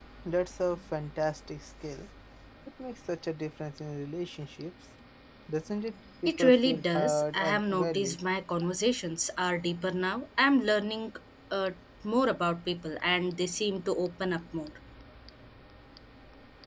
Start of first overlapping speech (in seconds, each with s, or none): 6.3 s